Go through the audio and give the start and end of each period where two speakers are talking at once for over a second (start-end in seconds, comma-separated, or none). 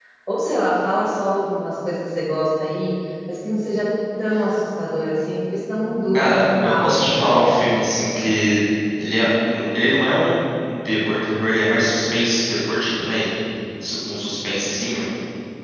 6.1-7.4